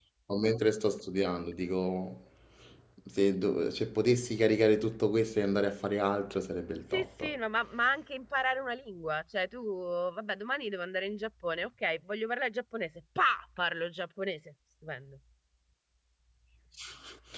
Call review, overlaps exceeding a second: none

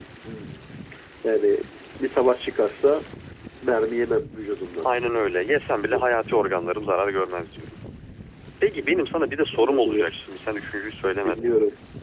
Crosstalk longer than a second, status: present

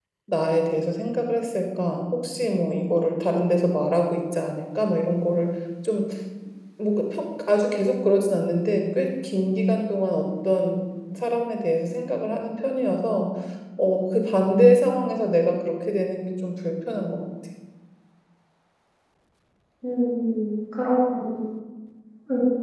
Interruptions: none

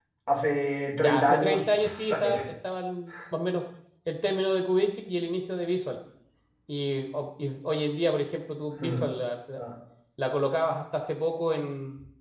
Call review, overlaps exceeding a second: present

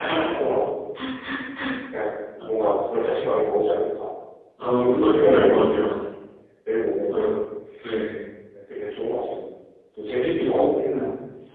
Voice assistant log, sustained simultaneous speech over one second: present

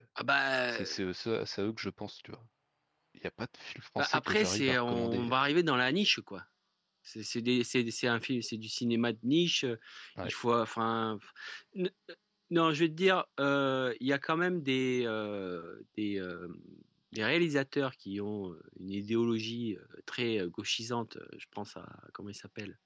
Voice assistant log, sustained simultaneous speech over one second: present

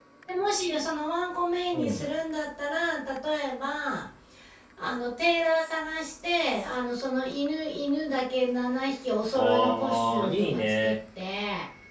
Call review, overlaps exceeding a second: present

